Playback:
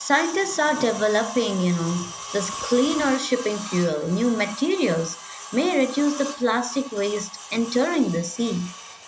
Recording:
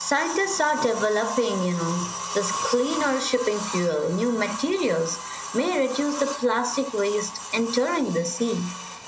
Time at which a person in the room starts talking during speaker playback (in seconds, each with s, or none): none